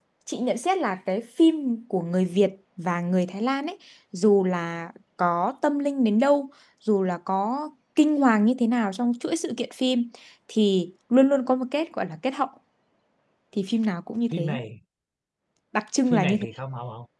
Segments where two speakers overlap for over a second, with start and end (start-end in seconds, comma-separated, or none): none